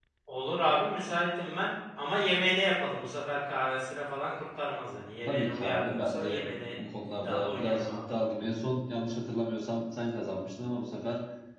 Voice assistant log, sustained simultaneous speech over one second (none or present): present